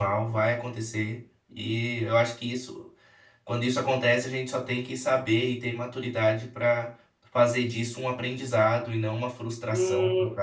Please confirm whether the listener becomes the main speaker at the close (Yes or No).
Yes